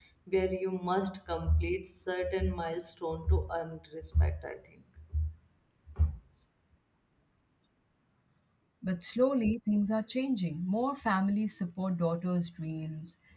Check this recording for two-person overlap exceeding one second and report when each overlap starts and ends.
none

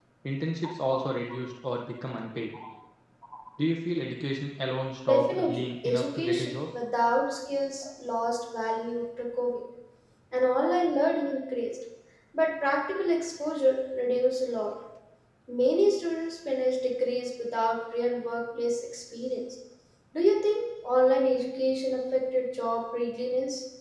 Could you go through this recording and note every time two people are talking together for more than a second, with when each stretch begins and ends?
5.1-6.5

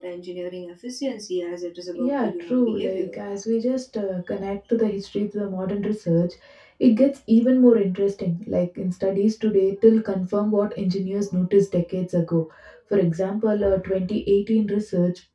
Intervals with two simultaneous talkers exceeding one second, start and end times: 1.9-3.1

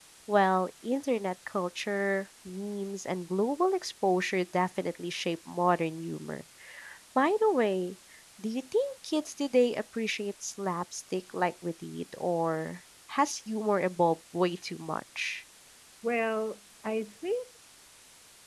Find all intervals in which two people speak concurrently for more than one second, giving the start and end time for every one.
none

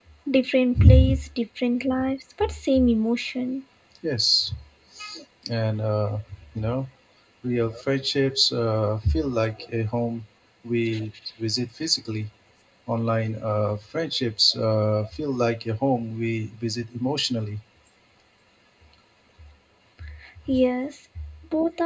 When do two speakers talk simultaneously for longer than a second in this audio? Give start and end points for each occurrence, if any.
none

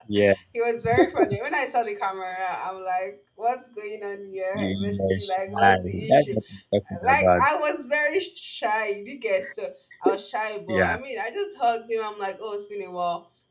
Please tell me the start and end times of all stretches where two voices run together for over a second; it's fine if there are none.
4.5-6.3

